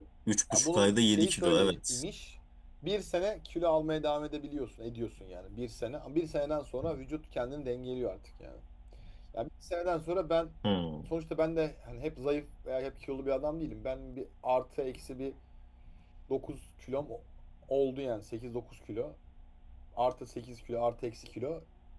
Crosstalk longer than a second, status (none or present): present